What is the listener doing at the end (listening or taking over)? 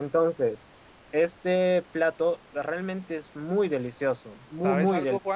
taking over